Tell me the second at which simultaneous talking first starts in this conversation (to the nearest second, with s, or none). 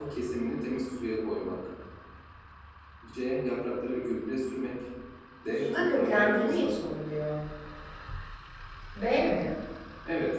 6 s